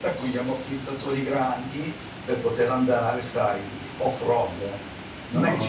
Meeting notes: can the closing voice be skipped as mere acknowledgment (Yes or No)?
Yes